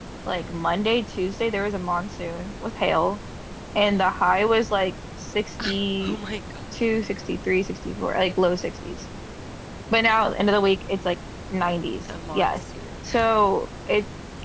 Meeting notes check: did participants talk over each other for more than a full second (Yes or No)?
No